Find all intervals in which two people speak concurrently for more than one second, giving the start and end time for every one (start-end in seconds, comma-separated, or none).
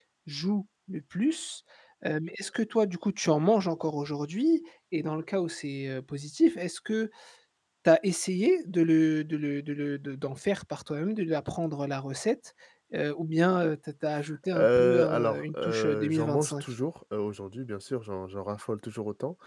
14.5-16.6